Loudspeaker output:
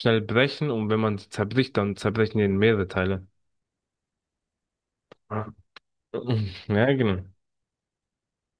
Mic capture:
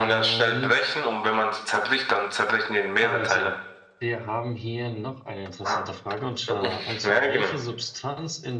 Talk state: both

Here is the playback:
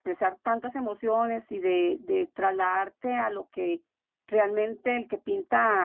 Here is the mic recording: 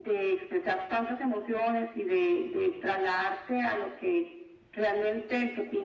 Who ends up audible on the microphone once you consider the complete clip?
echo only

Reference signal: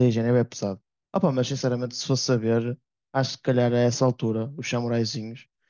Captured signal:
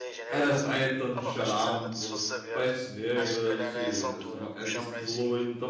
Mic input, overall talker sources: both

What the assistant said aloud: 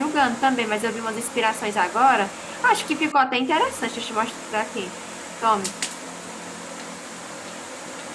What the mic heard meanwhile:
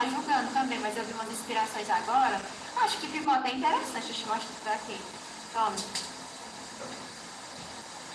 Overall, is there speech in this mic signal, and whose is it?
echo only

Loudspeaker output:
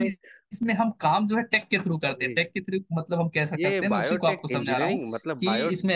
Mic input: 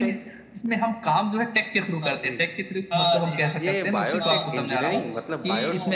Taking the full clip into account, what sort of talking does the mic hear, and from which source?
both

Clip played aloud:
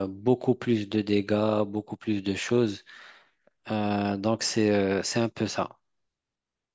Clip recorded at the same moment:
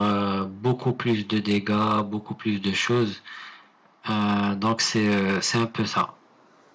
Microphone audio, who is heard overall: echo only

